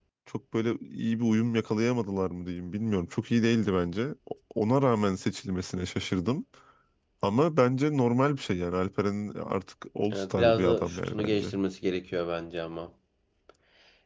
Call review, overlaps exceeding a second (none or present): present